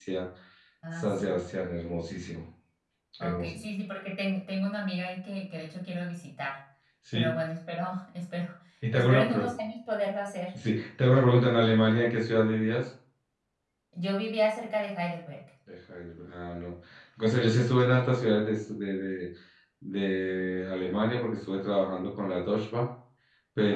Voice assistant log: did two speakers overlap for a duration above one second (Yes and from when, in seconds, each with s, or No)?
No